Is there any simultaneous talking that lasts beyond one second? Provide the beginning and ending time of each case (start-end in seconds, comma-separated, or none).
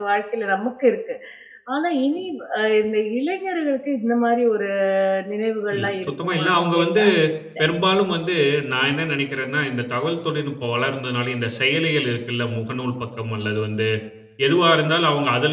5.8-7.0